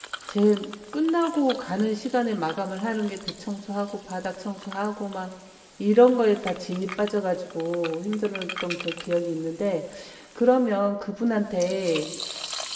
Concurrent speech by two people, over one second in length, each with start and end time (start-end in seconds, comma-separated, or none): none